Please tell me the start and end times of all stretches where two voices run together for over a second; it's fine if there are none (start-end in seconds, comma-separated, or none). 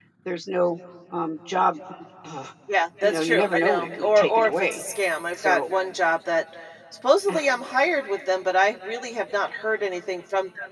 3.0-4.8